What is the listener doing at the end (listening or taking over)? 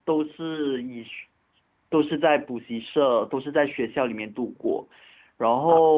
listening